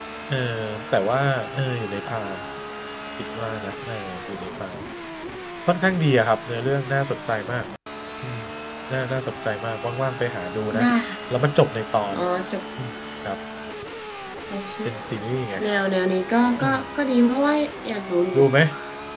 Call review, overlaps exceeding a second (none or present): none